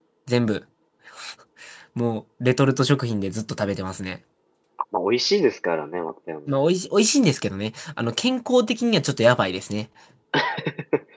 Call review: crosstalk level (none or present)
none